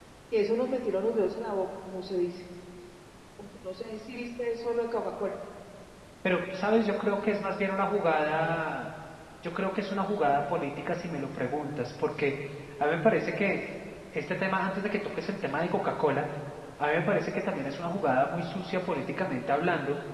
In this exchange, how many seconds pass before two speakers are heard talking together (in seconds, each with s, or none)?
none